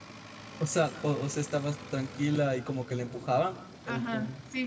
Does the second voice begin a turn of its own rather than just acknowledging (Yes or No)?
Yes